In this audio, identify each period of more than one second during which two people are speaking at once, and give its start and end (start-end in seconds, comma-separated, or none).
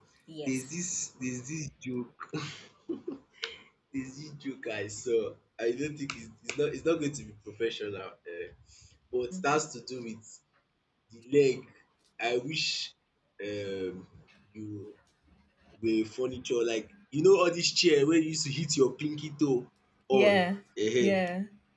none